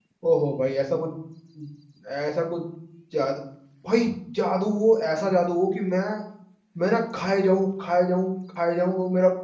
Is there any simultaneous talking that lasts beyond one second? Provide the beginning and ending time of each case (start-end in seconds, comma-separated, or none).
none